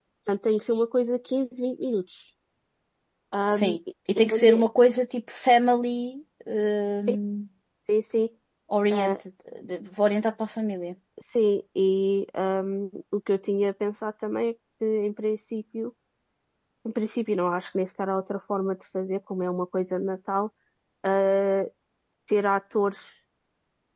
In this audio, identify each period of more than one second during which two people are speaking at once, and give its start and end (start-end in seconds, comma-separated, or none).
none